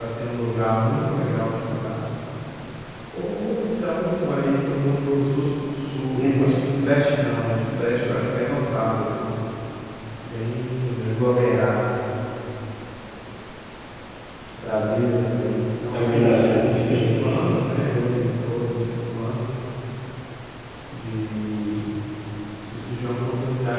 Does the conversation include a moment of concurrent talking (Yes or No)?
Yes